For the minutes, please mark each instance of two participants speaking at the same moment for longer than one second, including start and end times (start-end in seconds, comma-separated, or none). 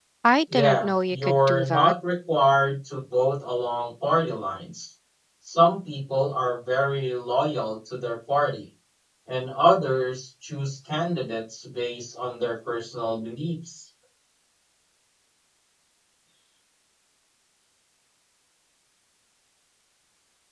0.5-1.9